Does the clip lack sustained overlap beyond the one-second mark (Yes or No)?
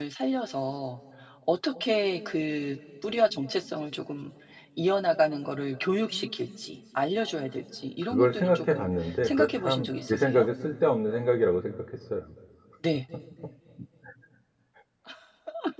No